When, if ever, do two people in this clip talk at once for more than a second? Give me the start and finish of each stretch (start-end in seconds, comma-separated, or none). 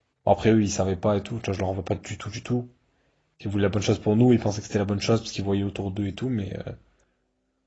none